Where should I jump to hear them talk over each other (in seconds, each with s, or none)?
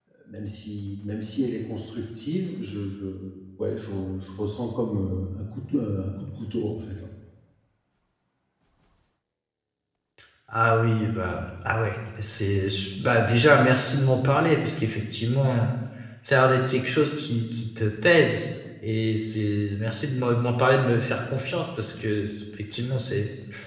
none